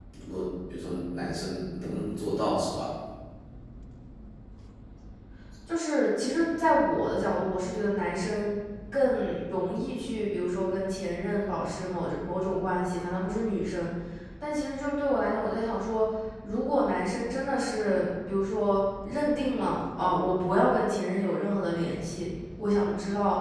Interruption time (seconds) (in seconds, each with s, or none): none